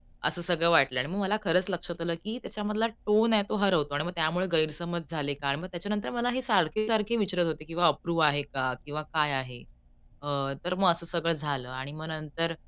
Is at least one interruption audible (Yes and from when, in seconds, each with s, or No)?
No